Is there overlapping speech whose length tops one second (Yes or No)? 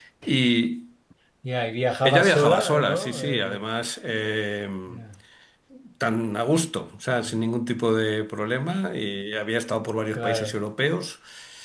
Yes